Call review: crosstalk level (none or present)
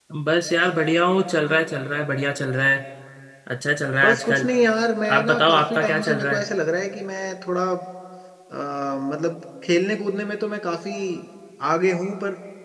present